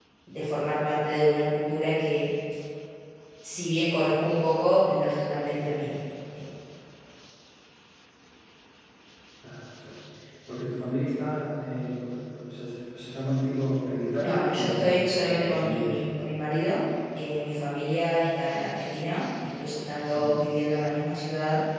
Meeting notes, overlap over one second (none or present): present